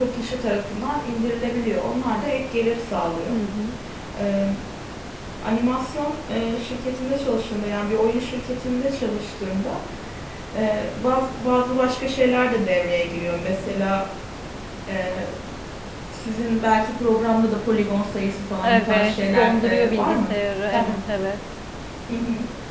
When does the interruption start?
18.6 s

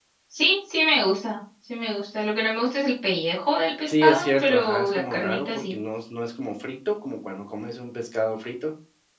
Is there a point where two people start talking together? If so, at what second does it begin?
3.9 s

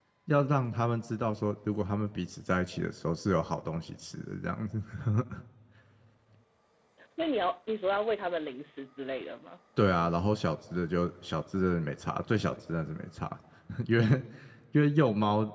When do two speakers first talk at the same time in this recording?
none

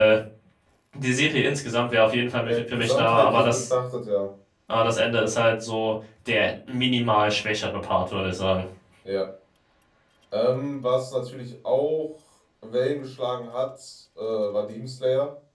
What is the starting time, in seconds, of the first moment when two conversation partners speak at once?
2.5 s

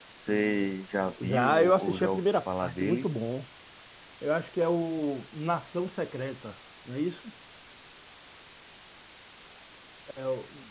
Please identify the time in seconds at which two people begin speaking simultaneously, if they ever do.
1.2 s

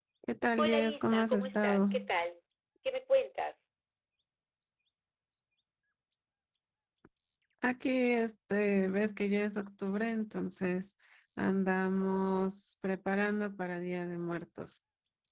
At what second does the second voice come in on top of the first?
0.6 s

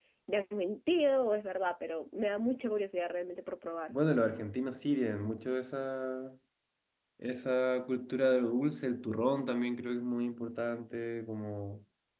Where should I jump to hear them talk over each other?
none

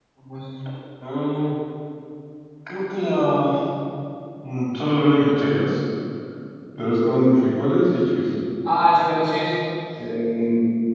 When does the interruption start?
none

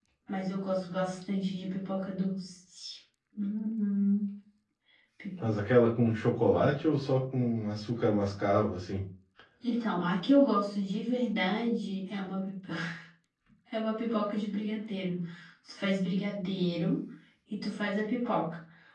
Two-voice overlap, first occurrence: none

